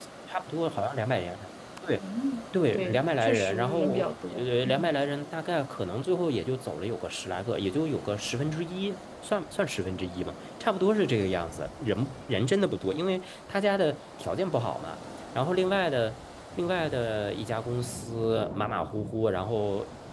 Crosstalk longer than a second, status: present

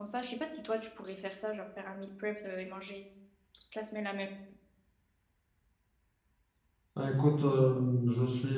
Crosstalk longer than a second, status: none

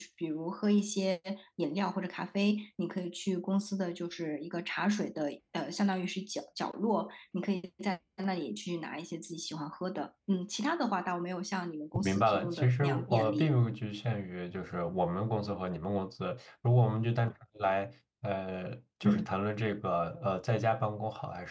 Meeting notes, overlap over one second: present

